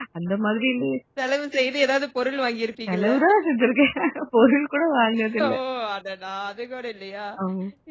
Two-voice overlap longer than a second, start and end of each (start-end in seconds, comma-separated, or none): none